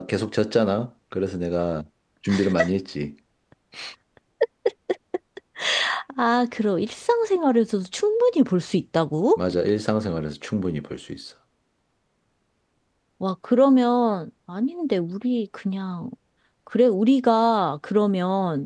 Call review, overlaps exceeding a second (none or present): none